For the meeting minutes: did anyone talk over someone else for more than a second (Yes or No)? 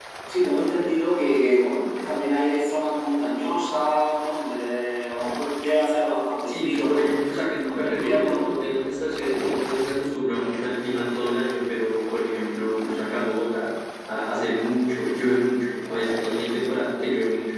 Yes